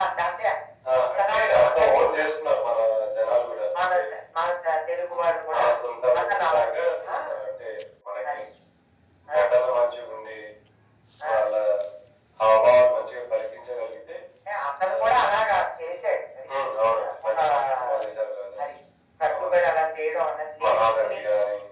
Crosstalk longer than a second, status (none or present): present